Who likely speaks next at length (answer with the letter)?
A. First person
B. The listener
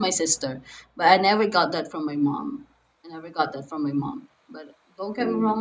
B